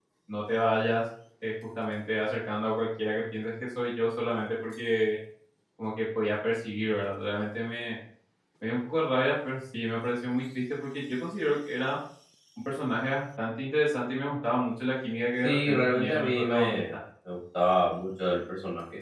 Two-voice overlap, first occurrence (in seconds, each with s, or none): 15.4 s